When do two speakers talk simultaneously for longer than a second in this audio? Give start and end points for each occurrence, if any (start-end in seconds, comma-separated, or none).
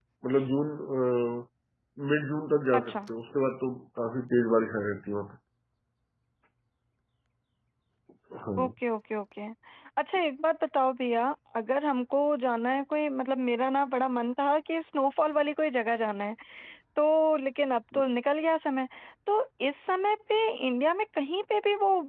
none